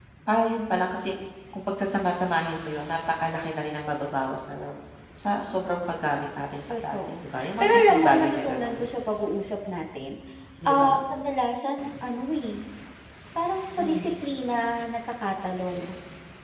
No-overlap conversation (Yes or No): No